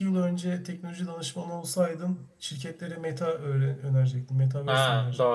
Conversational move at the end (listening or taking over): taking over